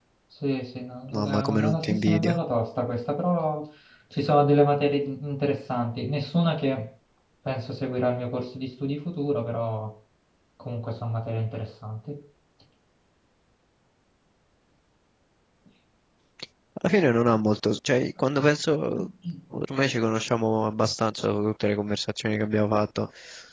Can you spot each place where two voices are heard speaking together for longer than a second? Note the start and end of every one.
1.1-2.4

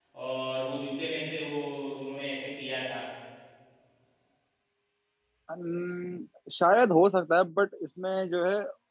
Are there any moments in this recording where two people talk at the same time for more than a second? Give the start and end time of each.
none

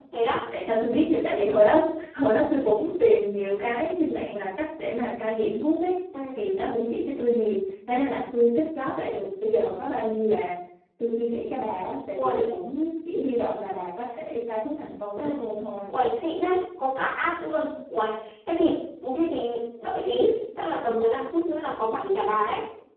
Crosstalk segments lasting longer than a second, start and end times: none

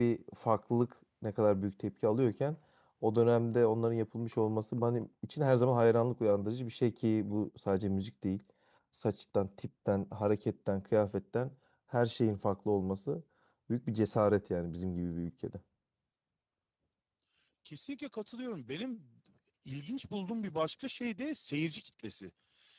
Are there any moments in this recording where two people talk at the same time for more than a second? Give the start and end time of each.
none

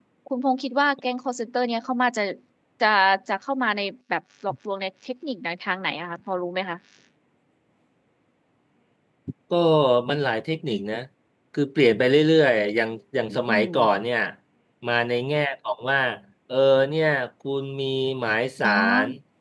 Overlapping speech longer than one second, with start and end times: none

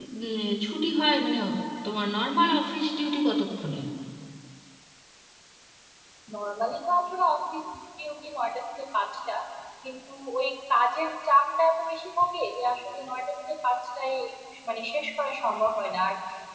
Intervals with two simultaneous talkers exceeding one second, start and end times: none

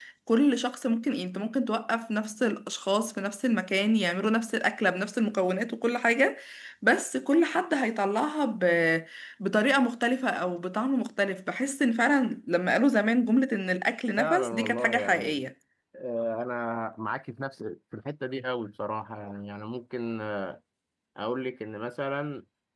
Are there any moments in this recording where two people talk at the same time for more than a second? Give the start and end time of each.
14.2-15.4

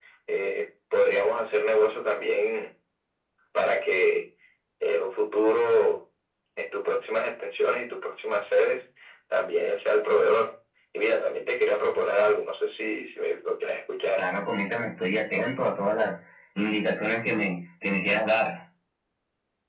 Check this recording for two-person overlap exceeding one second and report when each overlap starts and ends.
none

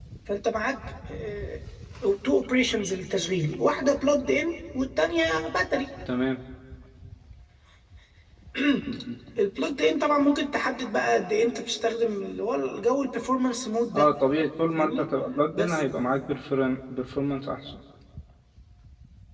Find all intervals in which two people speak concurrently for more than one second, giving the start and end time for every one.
none

